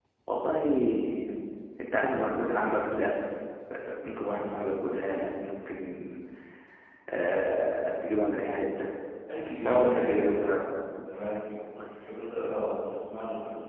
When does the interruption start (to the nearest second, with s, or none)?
9 s